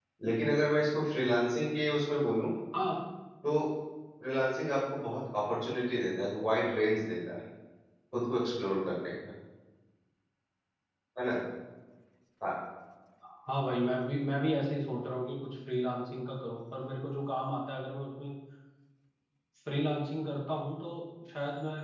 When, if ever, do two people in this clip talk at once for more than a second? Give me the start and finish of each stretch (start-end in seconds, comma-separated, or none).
none